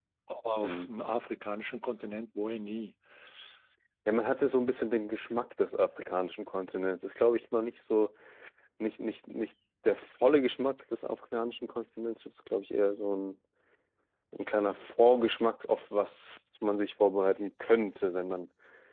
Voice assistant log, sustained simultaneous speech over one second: none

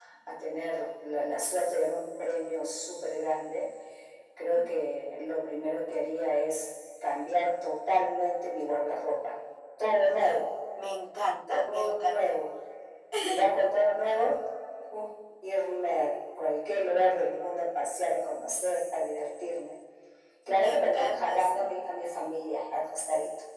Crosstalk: present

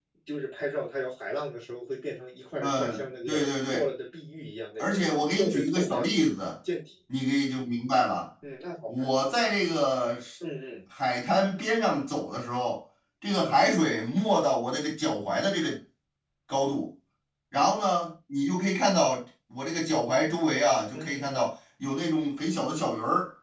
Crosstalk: present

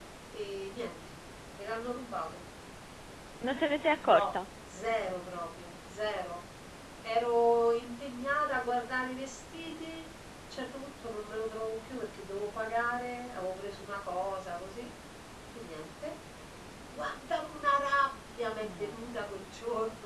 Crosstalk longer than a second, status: none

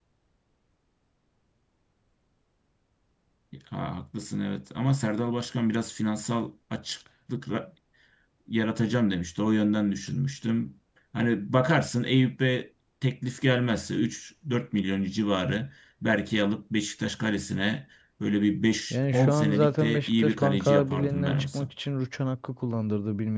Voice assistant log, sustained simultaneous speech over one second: present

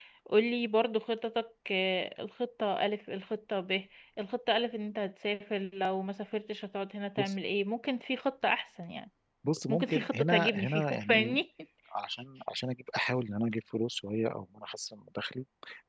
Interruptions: present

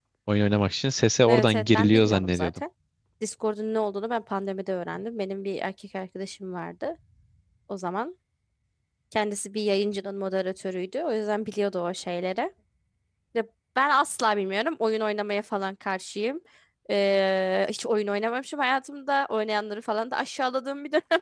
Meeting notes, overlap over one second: present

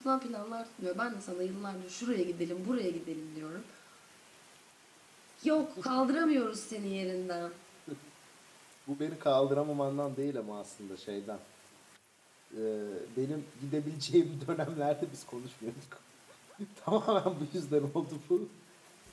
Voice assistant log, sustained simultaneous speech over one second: none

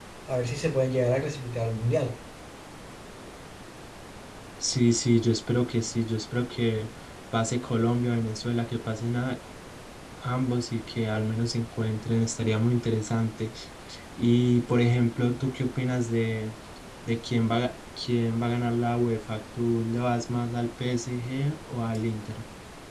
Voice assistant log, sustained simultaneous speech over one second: none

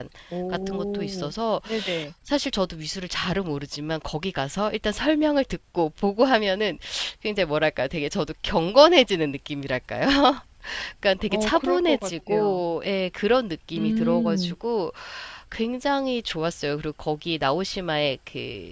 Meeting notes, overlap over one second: present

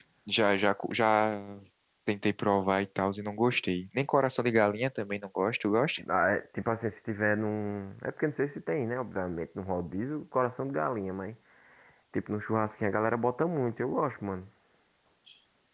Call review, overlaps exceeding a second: none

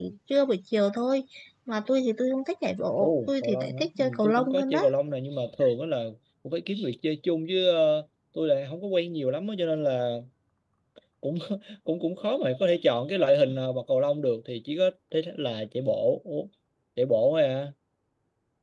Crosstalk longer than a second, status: present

